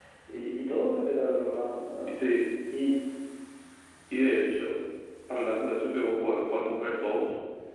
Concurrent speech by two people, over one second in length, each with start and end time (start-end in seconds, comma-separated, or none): none